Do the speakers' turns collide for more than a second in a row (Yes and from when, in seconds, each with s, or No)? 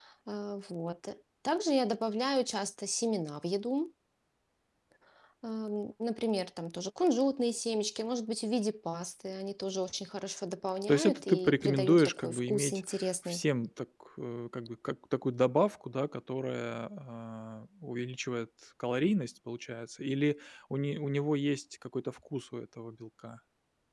Yes, from 10.9 s